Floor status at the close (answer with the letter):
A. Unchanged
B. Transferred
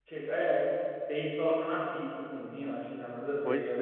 B